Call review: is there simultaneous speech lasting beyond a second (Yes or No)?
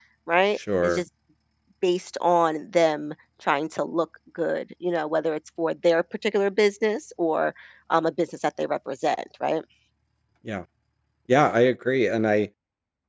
No